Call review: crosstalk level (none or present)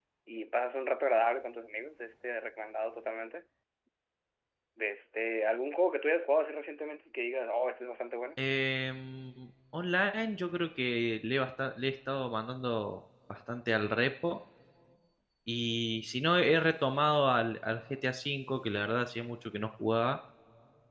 none